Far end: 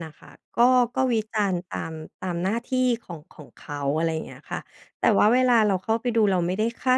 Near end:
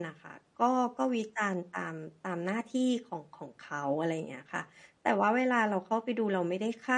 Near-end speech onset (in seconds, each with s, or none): none